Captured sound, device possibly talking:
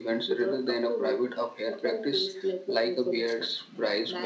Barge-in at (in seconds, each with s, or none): none